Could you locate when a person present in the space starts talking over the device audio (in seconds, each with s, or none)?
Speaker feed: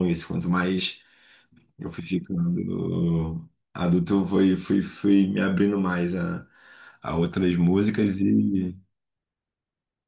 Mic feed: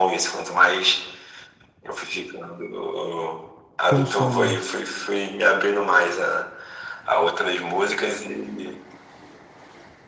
3.9 s